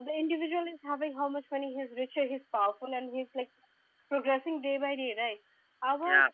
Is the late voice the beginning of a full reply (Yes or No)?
No